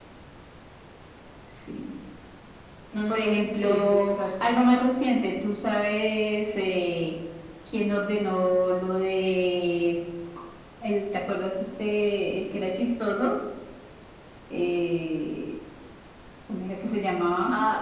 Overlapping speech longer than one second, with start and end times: 3.0-4.6

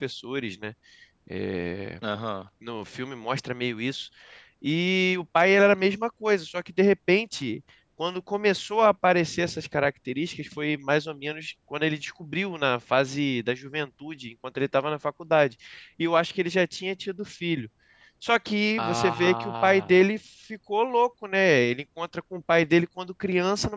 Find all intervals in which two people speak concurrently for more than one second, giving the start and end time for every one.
18.8-20.0

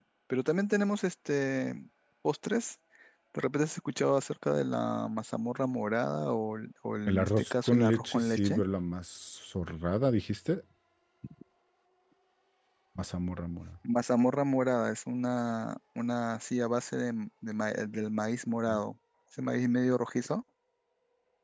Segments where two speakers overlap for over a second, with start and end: 7.1-8.6

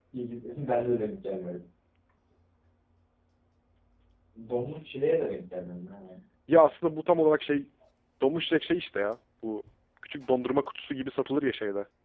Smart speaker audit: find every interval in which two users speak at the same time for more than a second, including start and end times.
none

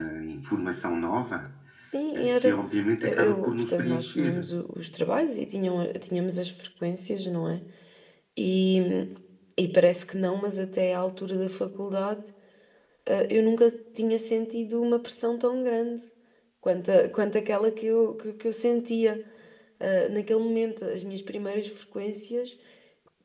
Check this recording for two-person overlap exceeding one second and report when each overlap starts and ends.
3.0-4.5

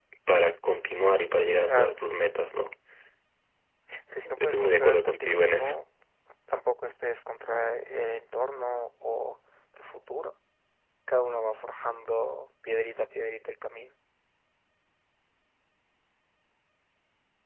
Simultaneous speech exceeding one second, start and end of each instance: 4.4-5.7

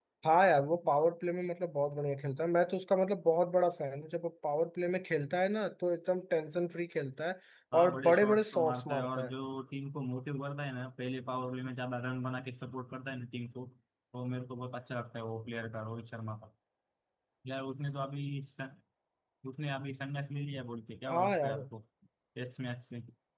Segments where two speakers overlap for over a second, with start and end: 7.8-9.3

